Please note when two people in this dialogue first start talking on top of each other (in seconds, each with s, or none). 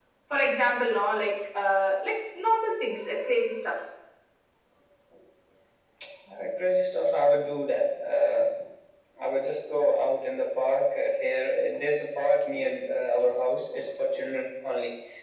none